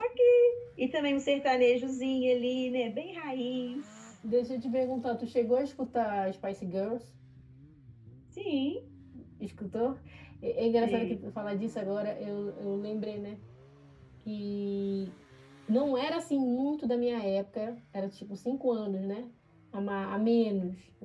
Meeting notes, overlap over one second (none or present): none